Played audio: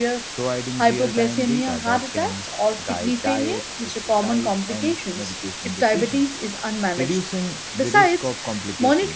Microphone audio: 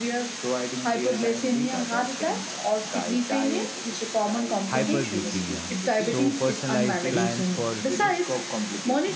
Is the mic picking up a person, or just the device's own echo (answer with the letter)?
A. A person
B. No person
A